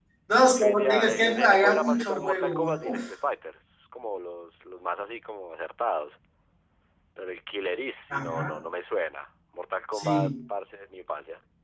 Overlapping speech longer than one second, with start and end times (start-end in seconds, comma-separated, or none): 0.5-3.0